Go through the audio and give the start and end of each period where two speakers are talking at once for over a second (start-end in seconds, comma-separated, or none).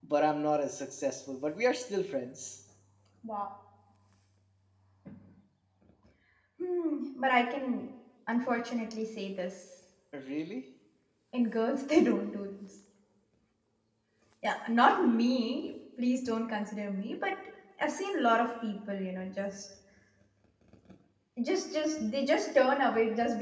none